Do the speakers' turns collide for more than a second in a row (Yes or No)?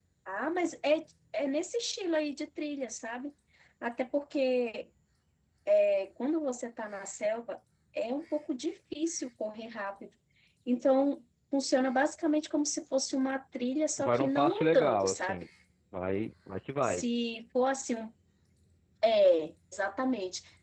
Yes